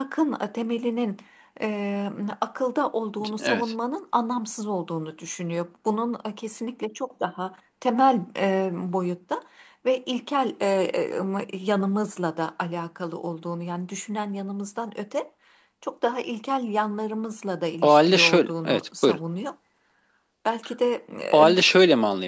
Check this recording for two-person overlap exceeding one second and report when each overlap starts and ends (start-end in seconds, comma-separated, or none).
17.8-19.2